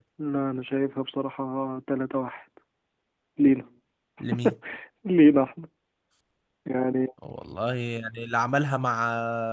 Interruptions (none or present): none